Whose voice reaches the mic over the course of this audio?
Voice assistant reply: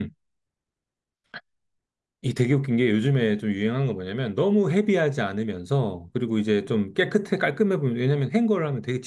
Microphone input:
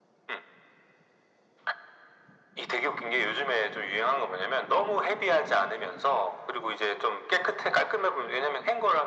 echo only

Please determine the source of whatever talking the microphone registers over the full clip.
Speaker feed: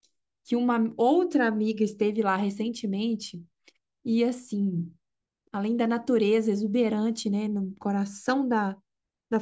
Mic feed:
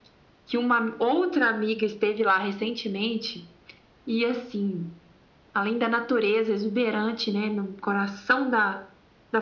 echo only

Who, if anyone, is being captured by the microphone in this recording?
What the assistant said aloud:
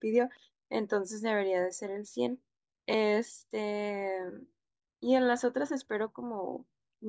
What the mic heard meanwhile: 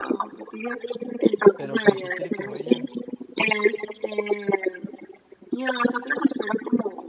both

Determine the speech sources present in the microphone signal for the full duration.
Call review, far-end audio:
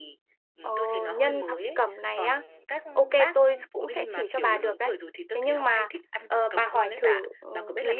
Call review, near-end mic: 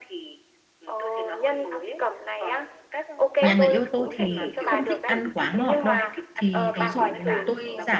both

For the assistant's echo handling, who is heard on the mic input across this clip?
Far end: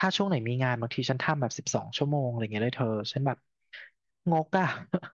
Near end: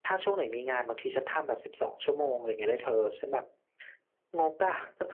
echo only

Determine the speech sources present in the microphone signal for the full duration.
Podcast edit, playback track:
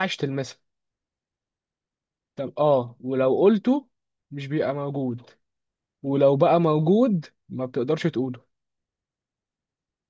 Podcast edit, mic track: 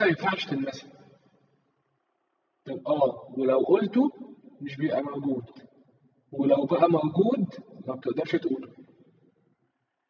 echo only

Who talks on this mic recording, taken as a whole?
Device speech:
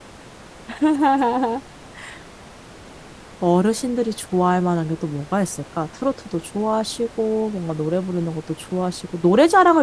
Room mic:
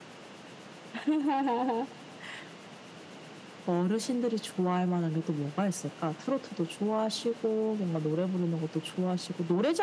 echo only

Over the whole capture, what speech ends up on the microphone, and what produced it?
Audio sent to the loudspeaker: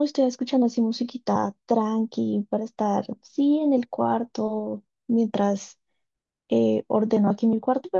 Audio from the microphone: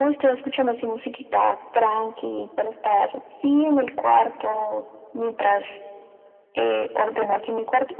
echo only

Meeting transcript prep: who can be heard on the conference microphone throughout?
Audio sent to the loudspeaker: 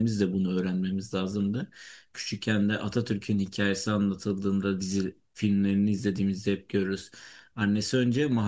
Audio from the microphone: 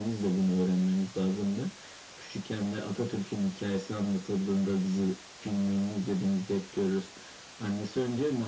echo only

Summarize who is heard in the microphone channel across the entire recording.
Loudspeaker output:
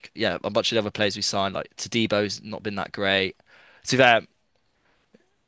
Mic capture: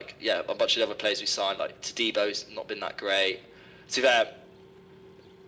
echo only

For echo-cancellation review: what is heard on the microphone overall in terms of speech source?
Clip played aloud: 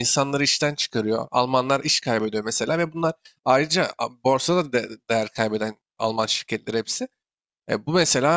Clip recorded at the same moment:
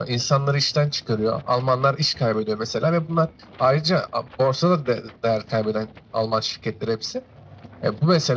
echo only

